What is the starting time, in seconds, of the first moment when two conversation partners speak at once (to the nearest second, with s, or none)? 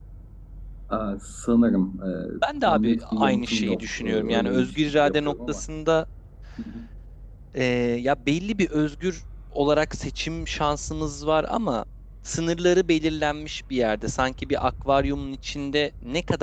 3 s